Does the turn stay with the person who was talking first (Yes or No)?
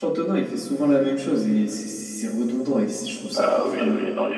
No